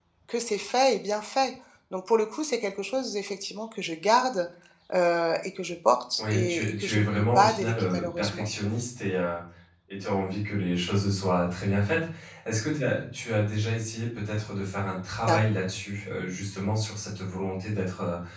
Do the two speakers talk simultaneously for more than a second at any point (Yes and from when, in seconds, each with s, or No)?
Yes, from 6.2 s